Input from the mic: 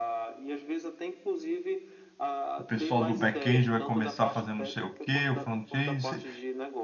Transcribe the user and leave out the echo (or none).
o pessoal do back-end vai começar a fazer não sei o quê, o front-end, você-